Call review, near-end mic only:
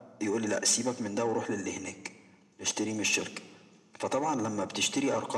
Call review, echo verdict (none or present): present